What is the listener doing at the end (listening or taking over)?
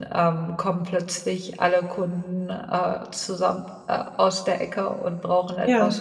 listening